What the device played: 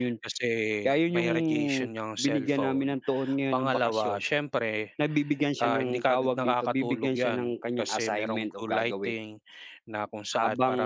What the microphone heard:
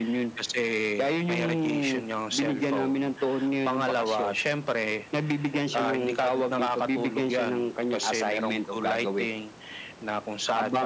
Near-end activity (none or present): none